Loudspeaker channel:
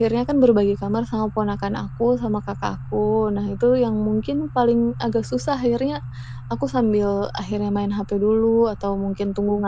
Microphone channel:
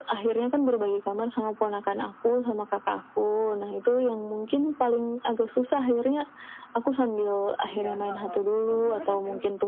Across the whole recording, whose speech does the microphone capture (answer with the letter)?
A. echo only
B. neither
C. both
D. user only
C